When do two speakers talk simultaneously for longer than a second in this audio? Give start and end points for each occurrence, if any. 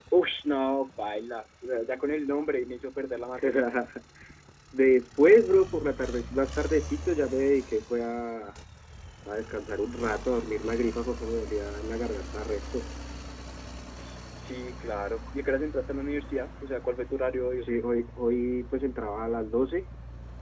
none

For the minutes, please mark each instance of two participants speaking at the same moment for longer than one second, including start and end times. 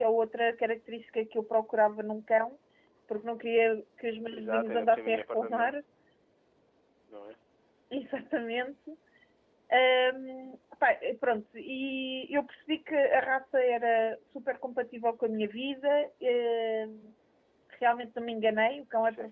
4.3-5.7

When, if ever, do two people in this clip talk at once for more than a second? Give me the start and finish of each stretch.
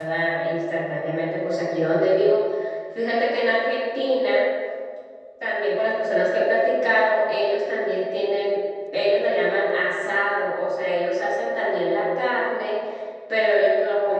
none

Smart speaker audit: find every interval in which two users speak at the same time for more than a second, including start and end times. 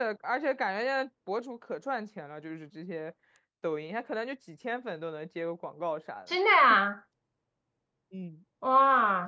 none

